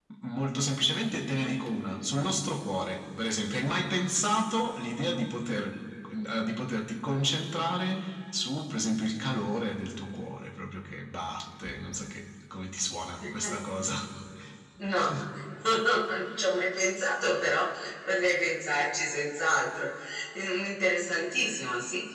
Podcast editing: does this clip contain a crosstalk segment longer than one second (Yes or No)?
No